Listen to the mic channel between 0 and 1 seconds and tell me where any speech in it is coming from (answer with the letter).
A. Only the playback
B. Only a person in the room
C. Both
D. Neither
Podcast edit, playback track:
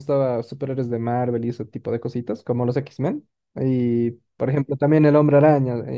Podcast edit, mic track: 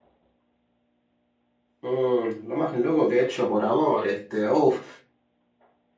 D